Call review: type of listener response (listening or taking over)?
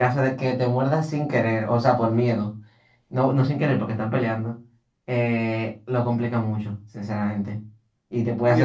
taking over